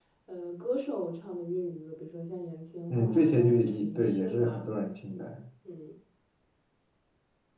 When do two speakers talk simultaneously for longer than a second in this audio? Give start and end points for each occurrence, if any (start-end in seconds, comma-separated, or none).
2.9-4.6